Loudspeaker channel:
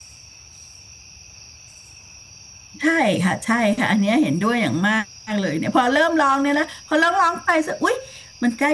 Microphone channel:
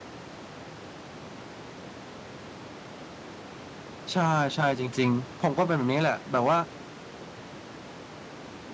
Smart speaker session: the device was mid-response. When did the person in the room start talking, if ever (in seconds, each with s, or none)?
4.1 s